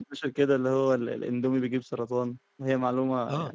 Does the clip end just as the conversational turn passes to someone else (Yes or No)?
Yes